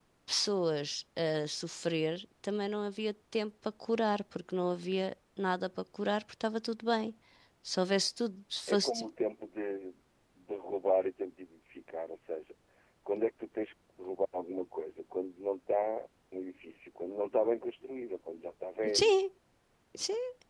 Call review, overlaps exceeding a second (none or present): none